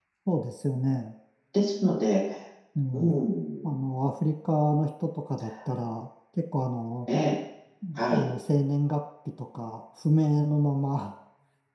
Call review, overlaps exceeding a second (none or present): none